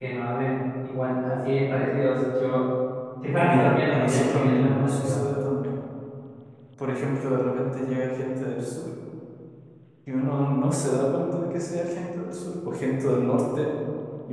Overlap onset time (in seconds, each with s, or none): 3.4 s